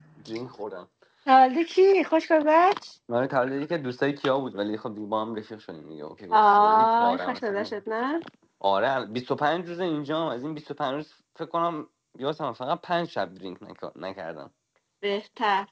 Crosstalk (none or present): present